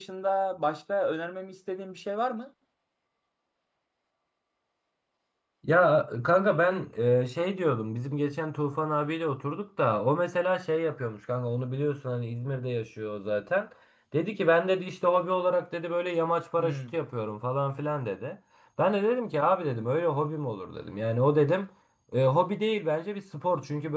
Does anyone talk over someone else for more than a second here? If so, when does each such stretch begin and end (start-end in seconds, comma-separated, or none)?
none